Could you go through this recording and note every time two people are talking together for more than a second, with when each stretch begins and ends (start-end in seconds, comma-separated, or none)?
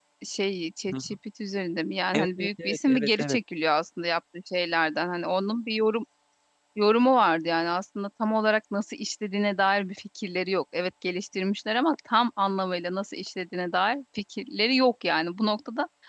2.1-3.4